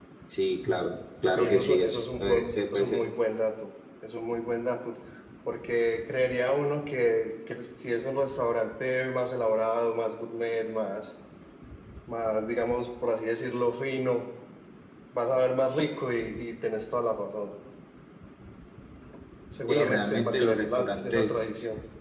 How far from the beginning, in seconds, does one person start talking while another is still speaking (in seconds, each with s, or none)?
1.3 s